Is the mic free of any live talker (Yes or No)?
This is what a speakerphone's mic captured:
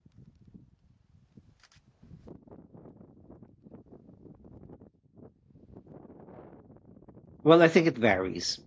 No